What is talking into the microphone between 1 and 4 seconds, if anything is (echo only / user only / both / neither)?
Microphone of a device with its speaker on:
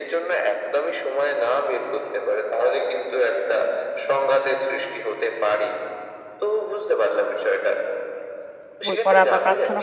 echo only